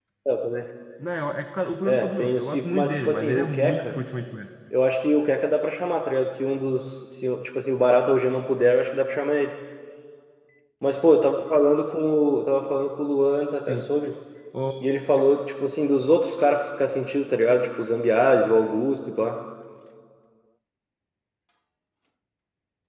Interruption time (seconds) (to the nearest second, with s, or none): 2 s